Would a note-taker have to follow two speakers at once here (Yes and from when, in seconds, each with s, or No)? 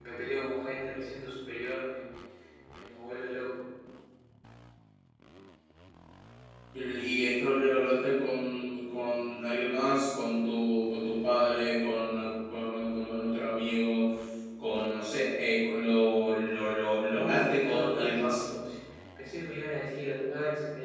Yes, from 17.0 s